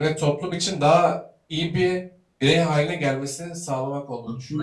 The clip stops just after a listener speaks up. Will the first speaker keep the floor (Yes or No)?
No